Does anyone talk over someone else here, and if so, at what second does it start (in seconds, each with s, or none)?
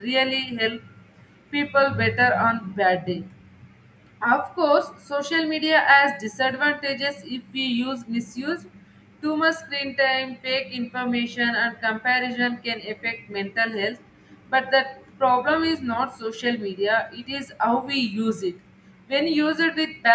none